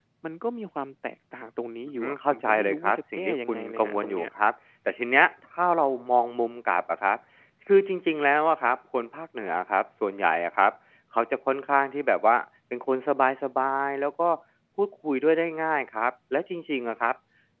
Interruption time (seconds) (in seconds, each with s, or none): 1.9 s